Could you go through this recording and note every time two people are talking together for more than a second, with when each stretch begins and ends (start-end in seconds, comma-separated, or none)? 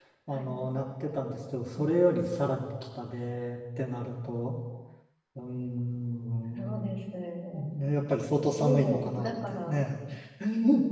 8.6-9.9